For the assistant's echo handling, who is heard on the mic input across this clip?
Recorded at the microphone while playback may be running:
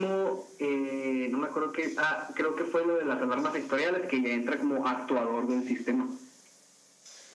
echo only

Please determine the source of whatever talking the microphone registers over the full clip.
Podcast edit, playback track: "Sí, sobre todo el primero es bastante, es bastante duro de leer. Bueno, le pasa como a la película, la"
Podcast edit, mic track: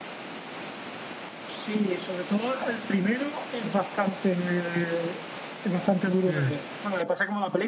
both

